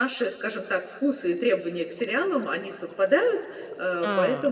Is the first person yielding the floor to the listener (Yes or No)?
No